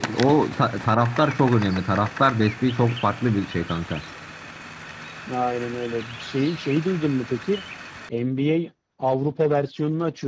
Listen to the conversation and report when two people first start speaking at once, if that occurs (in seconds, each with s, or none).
none